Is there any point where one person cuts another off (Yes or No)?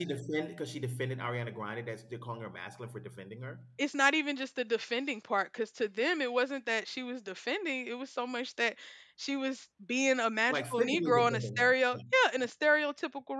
Yes